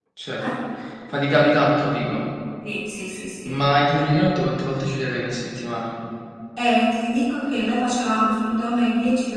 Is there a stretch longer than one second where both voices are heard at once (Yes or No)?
No